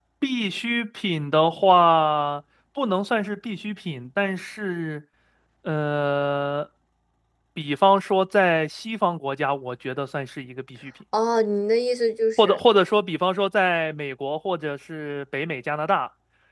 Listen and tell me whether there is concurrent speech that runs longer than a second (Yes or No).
No